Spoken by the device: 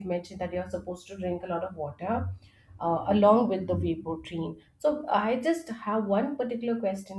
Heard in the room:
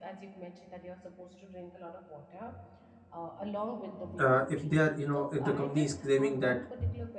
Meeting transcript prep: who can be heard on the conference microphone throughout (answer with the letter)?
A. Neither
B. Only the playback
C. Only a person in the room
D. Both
D